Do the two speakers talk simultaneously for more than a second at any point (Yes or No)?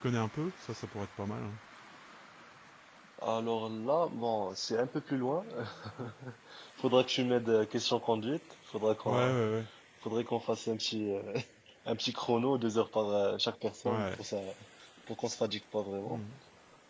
No